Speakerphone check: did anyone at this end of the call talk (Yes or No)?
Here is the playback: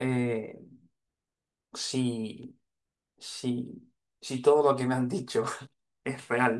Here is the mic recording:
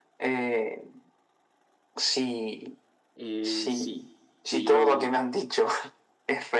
Yes